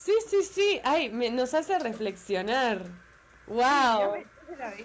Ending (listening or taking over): taking over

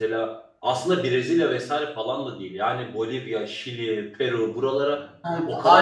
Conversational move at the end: taking over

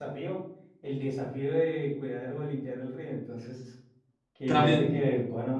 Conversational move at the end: listening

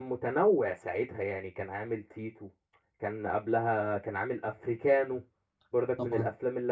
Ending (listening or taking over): listening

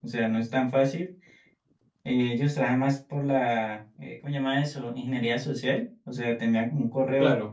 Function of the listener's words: listening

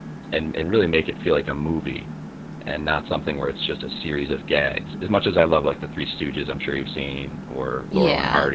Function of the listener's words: listening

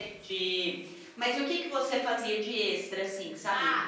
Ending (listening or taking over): taking over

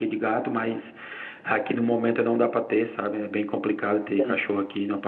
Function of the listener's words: listening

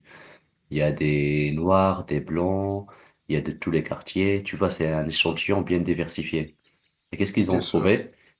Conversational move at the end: listening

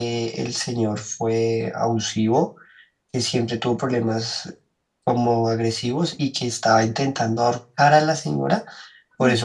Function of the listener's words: listening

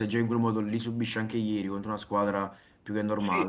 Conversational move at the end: taking over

